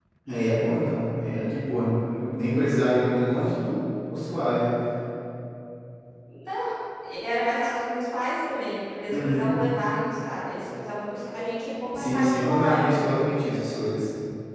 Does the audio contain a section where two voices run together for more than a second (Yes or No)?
Yes